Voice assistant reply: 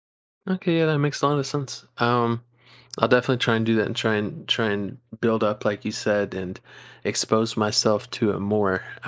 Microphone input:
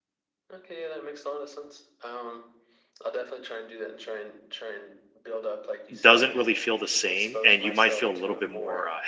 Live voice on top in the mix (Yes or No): Yes